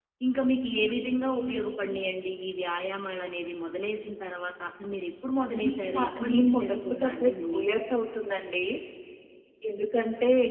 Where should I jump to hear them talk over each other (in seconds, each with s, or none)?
5.5 s